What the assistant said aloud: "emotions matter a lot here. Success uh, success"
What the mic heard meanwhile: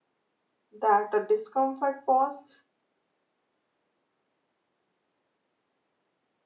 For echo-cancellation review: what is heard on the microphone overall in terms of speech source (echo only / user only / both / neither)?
user only